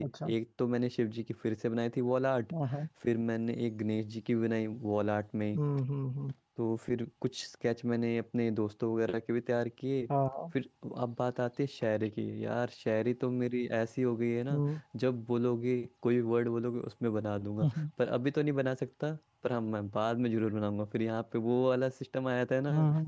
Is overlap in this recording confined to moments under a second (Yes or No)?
Yes